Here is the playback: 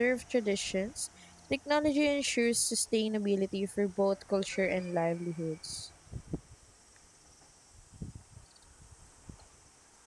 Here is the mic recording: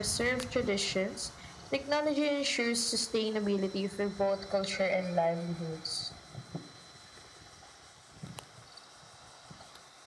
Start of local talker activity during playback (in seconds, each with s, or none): none